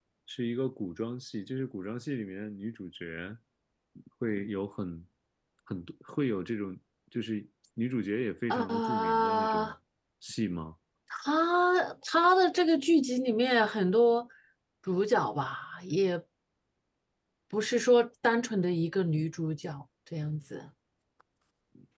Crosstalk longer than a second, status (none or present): present